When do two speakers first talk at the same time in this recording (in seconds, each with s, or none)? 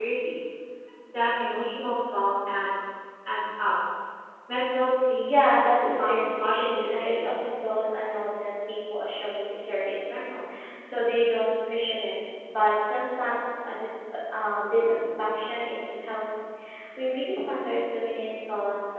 5.3 s